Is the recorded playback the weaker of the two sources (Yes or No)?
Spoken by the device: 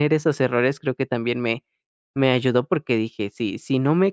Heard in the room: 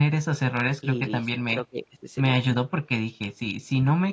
No